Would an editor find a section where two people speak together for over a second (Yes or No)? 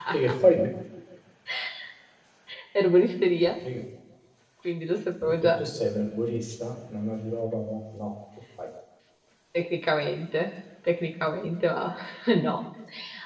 No